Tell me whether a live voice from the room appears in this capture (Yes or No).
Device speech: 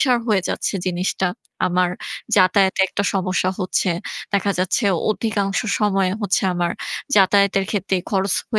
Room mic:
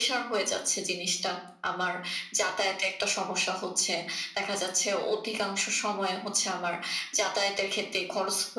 No